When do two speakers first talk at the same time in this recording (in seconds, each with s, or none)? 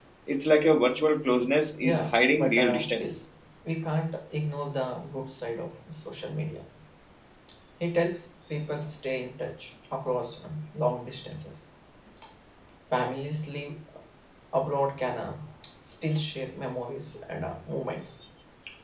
1.8 s